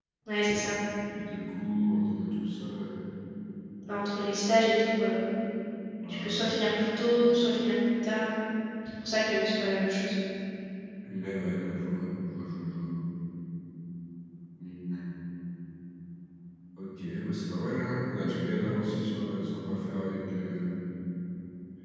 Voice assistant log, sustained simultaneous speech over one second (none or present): none